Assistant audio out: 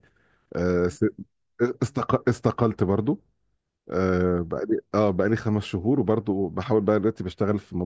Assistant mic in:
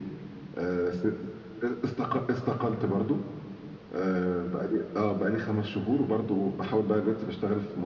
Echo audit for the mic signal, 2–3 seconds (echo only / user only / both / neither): echo only